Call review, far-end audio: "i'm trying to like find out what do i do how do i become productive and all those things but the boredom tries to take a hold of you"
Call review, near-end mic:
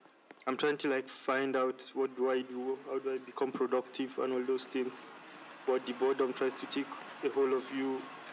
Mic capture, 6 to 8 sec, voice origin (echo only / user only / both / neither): echo only